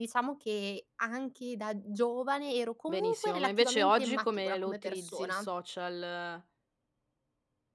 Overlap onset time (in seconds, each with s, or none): 2.9 s